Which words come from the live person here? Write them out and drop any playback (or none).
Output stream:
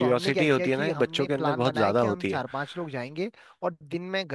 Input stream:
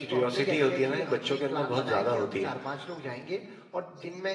none